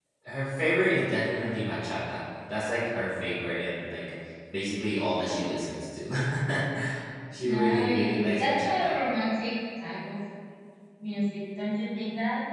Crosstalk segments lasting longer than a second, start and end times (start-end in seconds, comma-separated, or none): 7.4-9.0